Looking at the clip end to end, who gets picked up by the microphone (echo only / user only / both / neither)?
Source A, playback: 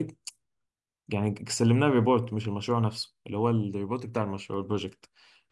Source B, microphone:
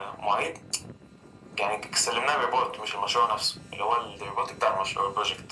echo only